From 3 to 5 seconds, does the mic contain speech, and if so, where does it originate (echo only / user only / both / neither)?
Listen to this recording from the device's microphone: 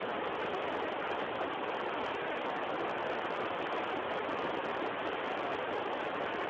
neither